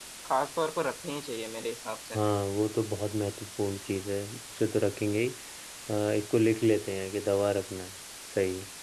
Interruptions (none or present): none